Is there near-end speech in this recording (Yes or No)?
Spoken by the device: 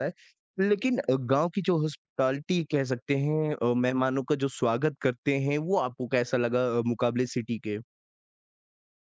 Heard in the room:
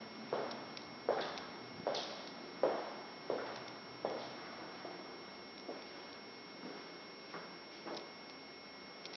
No